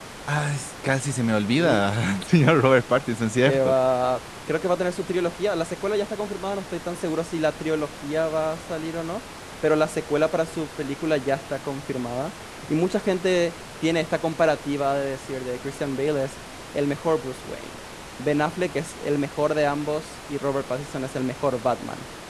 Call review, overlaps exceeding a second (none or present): none